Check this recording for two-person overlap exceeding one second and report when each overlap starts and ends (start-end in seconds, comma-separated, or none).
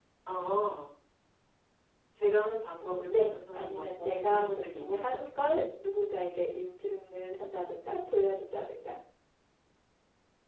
2.8-5.2